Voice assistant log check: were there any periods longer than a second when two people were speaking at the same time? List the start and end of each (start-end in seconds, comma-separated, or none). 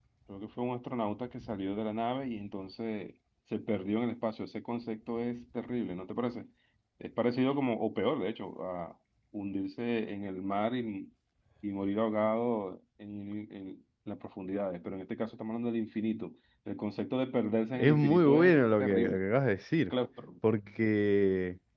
17.8-19.2